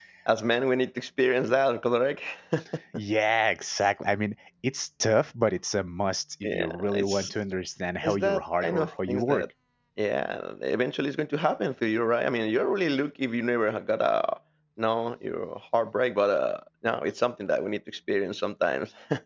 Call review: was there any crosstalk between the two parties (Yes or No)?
Yes